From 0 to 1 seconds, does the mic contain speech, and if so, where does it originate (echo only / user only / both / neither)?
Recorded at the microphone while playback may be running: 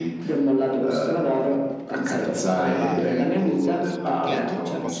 echo only